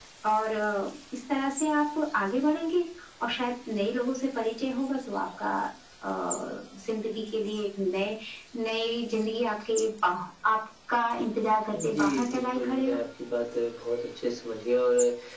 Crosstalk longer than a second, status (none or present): present